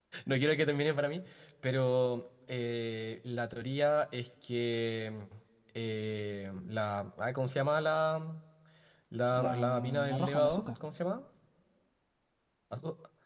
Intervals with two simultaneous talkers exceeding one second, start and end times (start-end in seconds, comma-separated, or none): 9.3-10.7